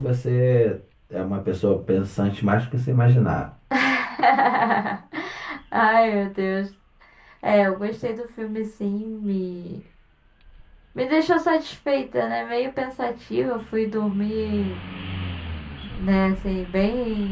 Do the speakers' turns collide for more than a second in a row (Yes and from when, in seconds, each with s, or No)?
No